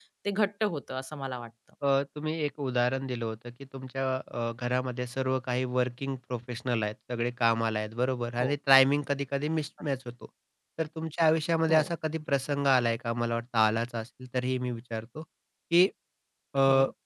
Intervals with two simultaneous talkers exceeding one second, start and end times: none

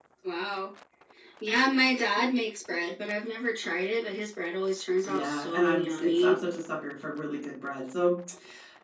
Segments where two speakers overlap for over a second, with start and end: 5.1-6.3

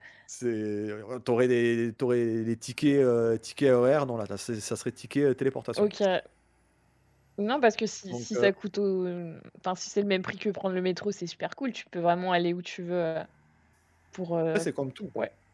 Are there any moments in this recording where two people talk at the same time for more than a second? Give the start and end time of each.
none

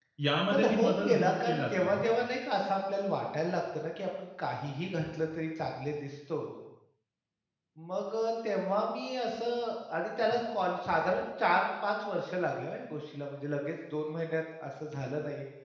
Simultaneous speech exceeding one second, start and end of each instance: 0.5-2.0

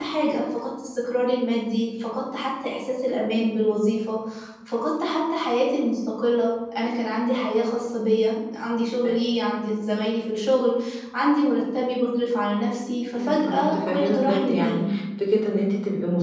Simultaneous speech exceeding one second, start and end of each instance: 13.1-14.8

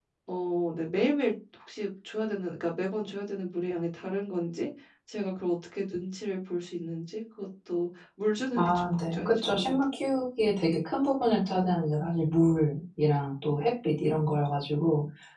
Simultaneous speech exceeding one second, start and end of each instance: 8.5-9.8

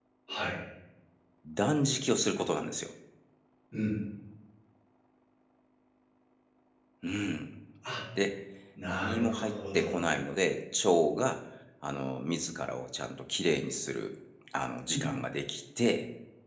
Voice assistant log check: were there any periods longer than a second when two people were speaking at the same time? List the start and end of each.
8.9-10.1

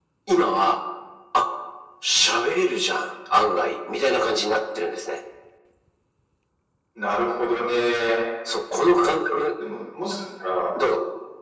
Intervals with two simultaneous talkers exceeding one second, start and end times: none

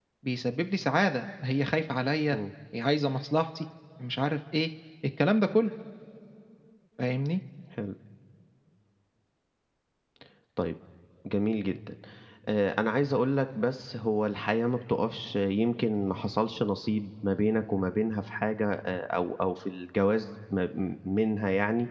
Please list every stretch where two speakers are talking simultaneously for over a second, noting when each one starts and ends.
none

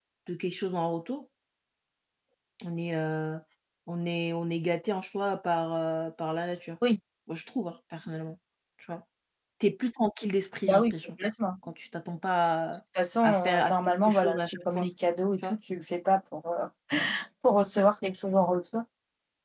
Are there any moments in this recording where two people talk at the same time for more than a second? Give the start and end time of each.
13.2-14.9

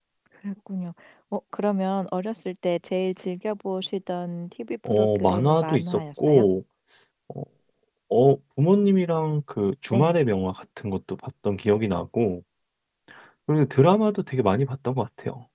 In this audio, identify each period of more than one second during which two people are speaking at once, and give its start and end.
4.8-6.4

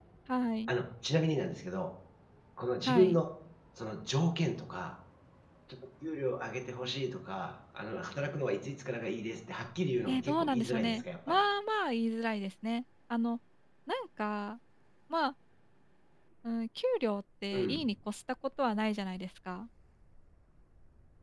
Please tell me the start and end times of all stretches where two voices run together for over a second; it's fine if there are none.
10.1-11.4

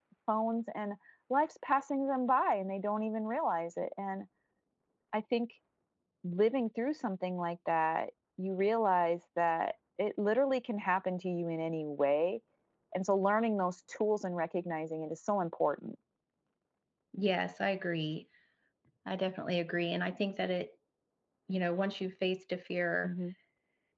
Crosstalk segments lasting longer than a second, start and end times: none

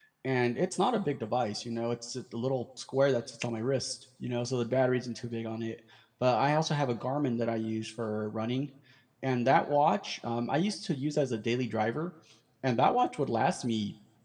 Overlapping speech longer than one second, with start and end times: none

